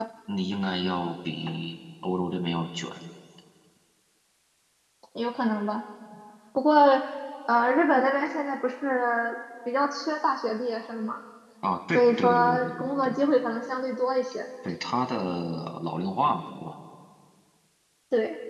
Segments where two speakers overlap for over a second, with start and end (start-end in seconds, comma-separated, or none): 11.9-13.2